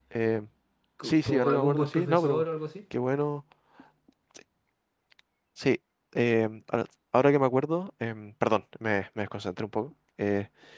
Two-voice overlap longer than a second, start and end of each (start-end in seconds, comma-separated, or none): 1.0-2.4